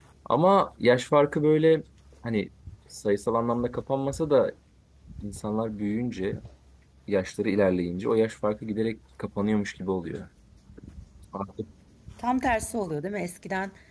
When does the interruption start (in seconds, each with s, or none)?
none